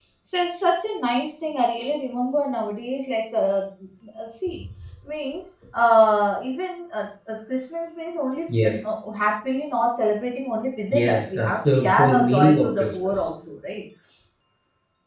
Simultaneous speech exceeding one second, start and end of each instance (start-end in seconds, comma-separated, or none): 10.9-13.3